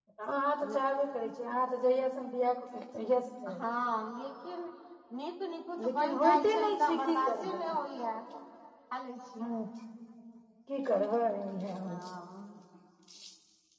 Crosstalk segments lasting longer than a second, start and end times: 5.8-7.6

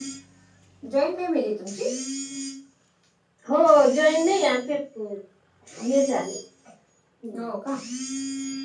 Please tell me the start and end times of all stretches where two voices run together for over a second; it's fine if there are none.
none

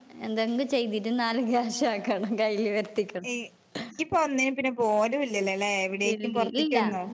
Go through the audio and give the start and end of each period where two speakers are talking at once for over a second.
none

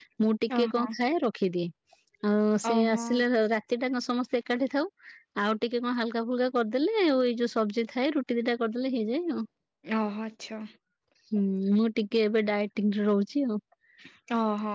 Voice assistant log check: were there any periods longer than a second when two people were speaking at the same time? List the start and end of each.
none

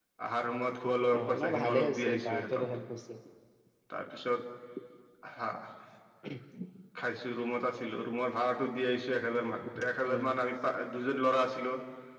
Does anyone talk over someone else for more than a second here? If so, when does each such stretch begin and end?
1.2-2.6

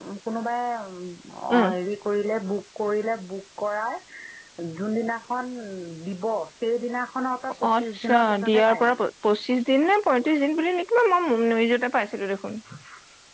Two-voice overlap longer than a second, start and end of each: 7.8-9.1

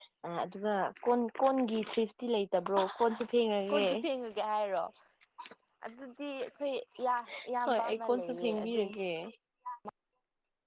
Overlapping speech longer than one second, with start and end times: 7.7-8.9

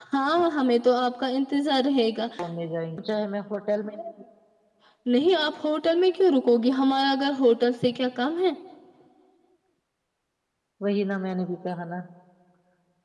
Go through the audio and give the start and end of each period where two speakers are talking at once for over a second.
none

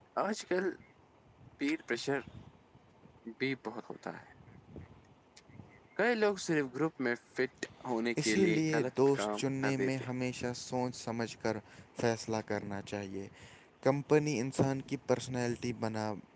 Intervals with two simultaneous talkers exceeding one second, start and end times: 8.2-10.0

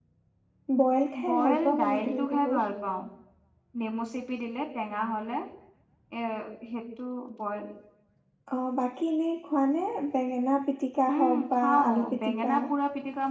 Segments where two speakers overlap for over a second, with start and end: 1.3-2.6, 11.2-12.5

